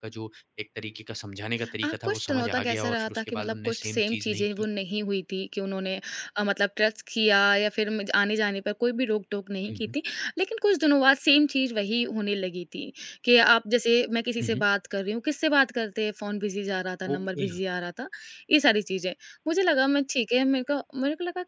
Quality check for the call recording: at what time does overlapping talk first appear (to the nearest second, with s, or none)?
2 s